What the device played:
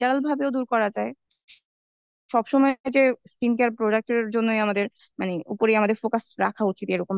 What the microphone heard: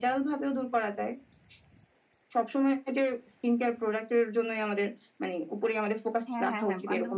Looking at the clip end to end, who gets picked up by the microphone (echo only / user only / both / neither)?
both